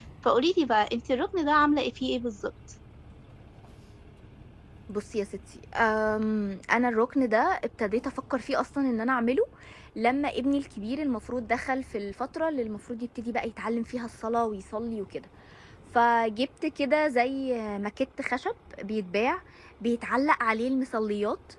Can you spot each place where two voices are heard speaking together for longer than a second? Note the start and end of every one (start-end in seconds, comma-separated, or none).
none